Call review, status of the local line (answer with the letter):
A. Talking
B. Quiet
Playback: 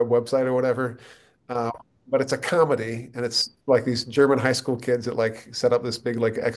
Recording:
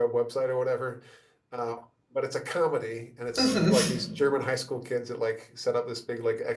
A